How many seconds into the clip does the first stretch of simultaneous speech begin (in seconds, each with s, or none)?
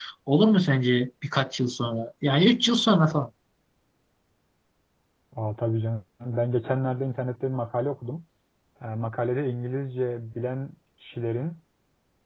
none